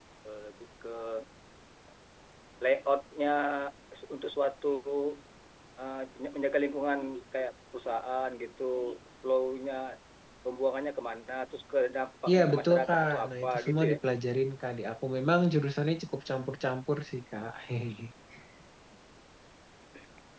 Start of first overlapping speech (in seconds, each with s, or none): 12.3 s